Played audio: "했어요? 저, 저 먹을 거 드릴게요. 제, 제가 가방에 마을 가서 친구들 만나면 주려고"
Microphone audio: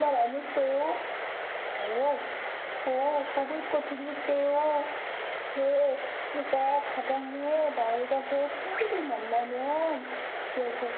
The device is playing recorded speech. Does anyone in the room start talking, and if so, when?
none

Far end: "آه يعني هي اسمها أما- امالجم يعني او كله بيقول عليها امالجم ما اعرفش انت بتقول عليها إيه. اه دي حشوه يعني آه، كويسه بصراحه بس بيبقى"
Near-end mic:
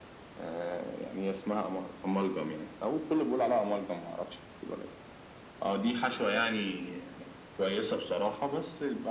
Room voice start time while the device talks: none

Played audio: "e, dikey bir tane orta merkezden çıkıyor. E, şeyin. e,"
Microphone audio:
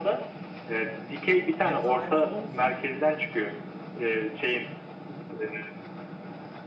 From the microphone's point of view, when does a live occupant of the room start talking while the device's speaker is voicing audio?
2 s

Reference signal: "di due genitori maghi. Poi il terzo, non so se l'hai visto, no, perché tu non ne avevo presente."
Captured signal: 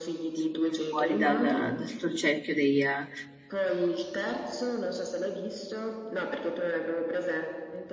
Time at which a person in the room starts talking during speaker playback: 0 s

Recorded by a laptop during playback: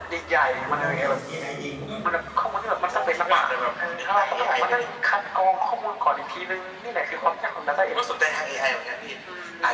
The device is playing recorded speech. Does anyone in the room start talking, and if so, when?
1 s

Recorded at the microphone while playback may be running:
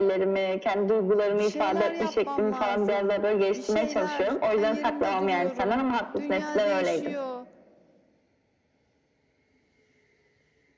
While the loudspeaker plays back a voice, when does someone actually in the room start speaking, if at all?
1 s

